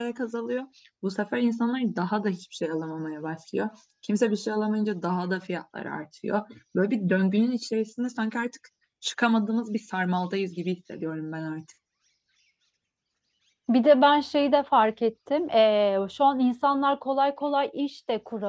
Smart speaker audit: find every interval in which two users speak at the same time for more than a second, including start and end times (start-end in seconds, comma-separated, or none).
none